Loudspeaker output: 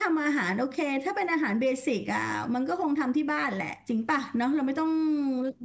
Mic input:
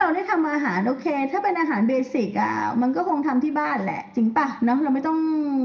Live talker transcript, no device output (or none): none